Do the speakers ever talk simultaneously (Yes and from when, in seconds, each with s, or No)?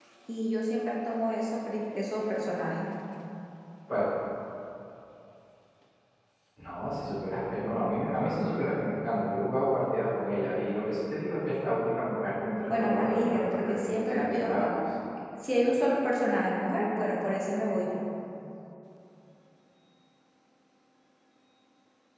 Yes, from 12.7 s